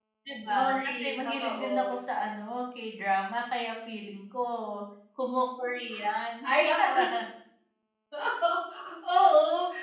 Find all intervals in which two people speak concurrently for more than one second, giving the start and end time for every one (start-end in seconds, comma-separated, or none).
0.5-1.7